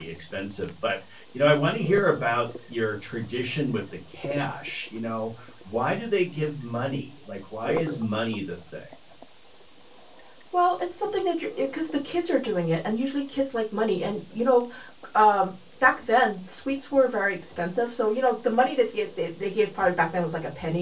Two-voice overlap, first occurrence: none

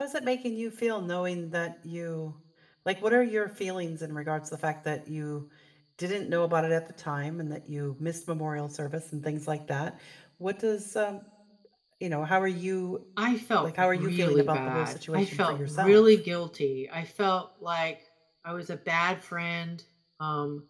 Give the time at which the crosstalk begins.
13.6 s

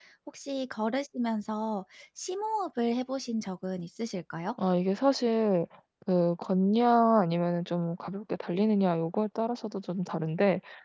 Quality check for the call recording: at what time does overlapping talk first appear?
none

